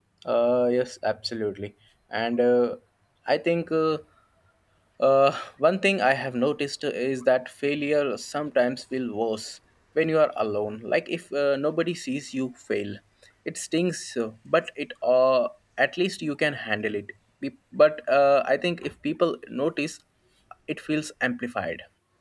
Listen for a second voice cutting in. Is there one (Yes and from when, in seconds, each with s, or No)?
No